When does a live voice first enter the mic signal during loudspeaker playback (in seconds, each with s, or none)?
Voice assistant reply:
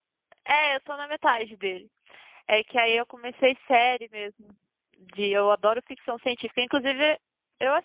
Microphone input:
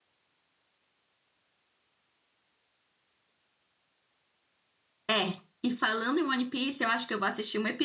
5.1 s